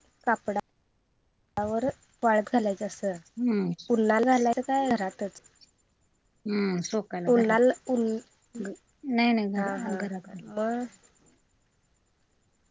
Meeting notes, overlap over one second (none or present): none